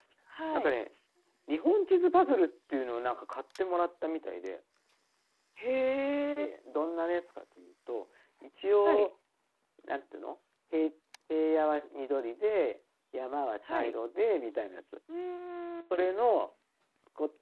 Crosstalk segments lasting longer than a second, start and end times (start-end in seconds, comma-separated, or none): none